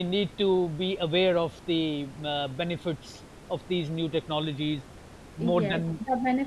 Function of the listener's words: taking over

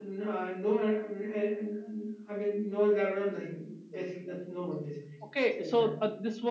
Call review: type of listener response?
taking over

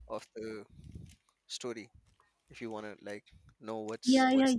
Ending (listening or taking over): taking over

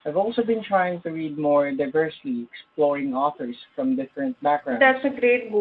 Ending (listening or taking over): taking over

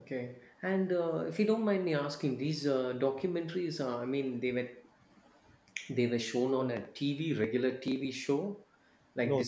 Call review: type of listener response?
taking over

